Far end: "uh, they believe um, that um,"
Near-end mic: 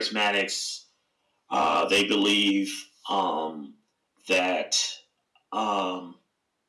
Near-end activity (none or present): none